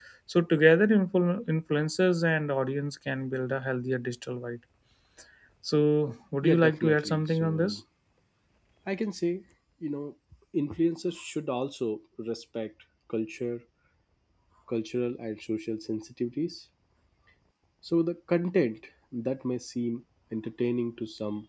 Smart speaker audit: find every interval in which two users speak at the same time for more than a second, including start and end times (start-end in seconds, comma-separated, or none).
6.4-7.8